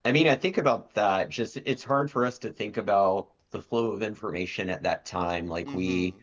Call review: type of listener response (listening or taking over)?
listening